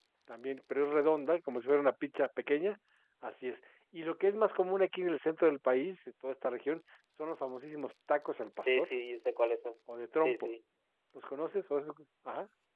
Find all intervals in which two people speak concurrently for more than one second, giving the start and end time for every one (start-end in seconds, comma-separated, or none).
none